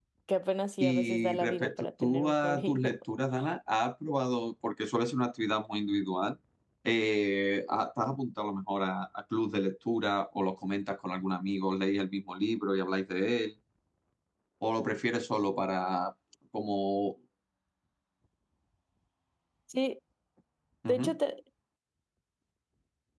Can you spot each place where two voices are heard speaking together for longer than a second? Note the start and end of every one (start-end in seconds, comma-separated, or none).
0.8-3.0